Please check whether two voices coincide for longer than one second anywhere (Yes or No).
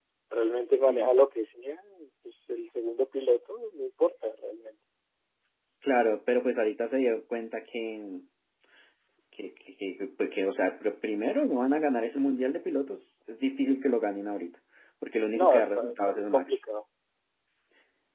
Yes